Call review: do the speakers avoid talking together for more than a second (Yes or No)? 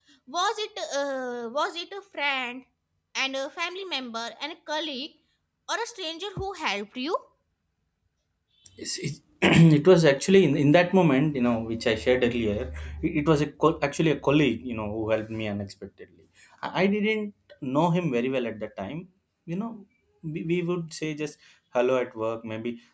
Yes